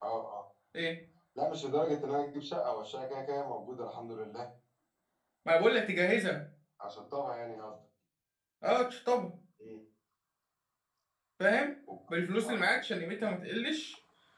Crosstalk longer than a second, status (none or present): none